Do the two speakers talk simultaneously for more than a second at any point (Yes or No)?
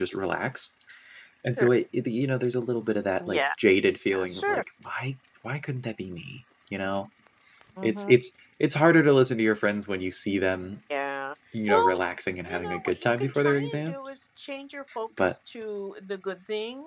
Yes